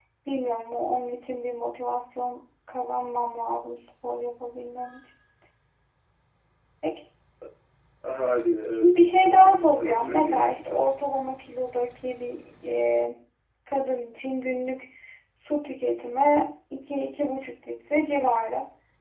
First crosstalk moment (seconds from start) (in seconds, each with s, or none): 8.7 s